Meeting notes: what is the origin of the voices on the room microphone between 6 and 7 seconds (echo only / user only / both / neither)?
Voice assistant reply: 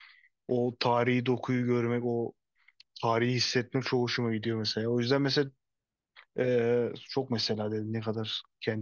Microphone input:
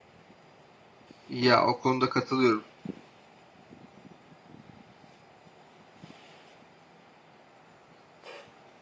neither